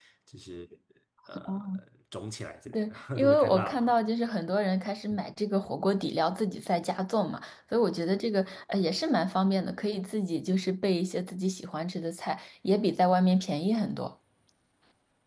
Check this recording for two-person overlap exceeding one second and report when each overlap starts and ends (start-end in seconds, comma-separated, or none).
2.7-3.9